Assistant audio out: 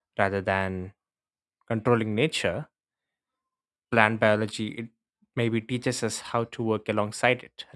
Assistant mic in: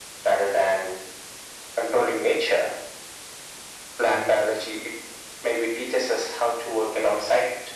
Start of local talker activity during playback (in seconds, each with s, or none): none